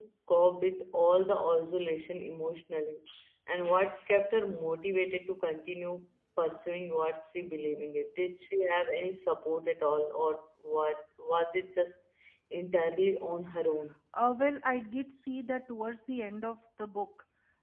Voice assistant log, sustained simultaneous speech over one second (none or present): none